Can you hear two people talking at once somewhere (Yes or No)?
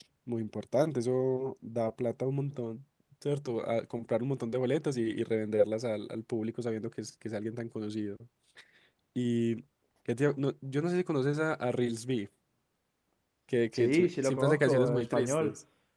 Yes